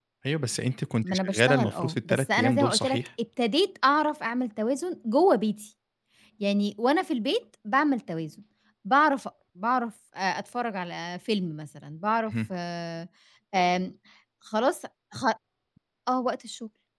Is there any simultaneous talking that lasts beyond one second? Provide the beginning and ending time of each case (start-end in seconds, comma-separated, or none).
1.0-3.0